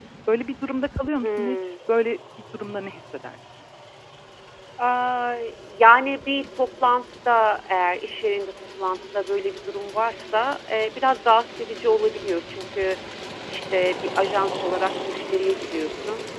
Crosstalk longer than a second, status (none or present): none